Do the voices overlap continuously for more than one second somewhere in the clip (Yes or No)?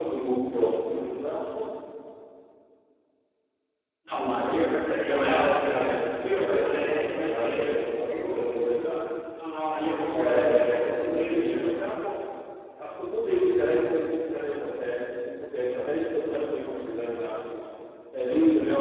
Yes